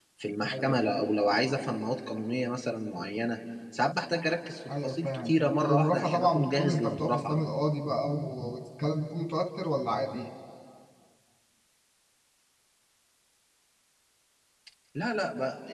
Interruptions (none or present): present